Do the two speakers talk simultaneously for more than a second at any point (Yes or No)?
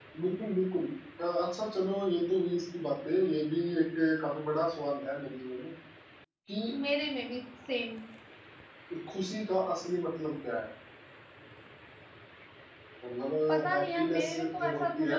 Yes